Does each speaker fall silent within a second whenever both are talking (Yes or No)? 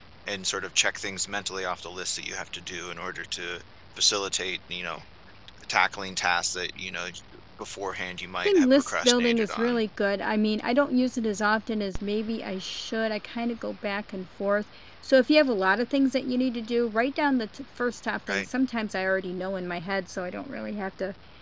No